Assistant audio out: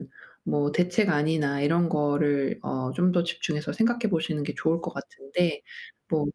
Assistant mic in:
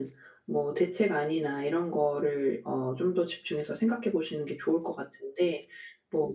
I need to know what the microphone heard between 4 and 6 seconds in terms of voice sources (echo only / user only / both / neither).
echo only